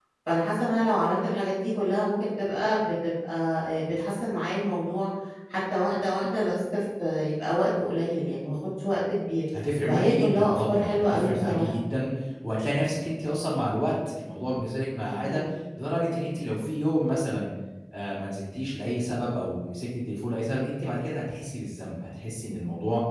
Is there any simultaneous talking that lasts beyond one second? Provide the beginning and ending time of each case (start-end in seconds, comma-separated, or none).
9.9-11.7